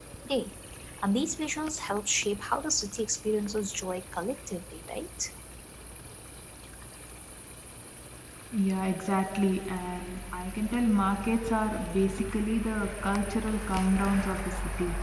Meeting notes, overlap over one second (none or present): none